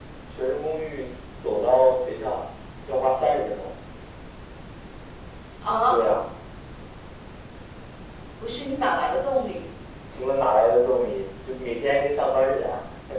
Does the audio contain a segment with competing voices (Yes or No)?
No